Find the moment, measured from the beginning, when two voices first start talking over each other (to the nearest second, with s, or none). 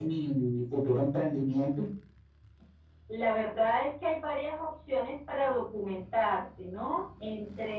none